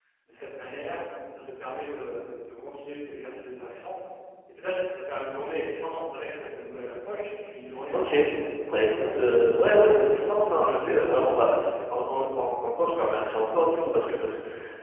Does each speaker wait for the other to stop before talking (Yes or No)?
No